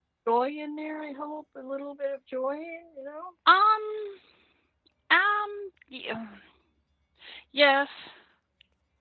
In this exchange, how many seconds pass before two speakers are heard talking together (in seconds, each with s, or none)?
none